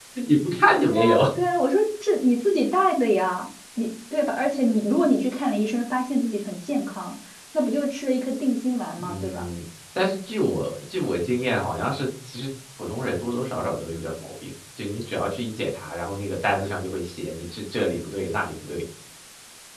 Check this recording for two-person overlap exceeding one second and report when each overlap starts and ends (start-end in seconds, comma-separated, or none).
none